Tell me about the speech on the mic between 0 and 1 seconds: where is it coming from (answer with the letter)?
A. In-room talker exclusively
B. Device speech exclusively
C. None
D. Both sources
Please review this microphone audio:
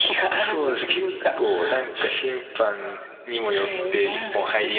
D